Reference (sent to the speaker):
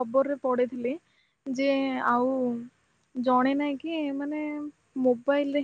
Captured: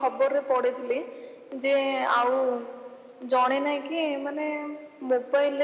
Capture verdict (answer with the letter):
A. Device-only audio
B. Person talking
A